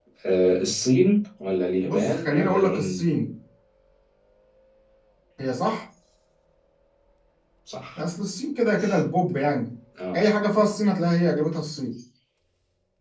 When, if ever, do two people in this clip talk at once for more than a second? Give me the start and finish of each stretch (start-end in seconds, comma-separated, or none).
1.8-3.0